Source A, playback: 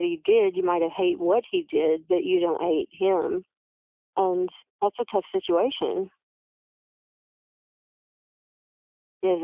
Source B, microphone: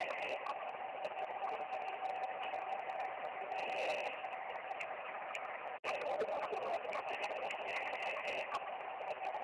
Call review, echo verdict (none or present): none